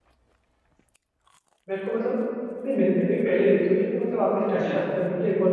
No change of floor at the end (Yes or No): Yes